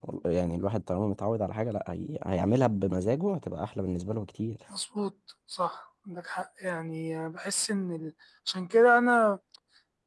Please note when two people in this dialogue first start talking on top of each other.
none

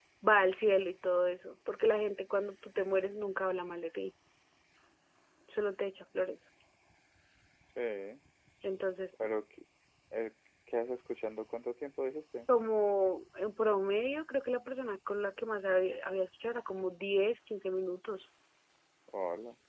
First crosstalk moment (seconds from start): none

